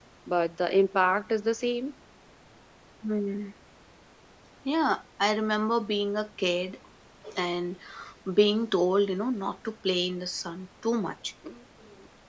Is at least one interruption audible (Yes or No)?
No